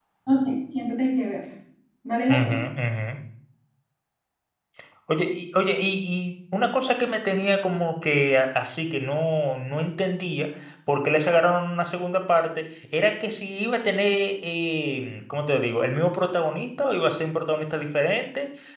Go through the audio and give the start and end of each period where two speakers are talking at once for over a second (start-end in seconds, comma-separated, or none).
none